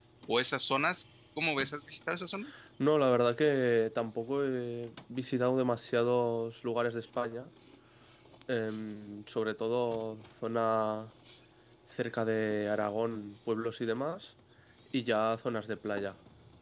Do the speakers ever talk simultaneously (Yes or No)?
No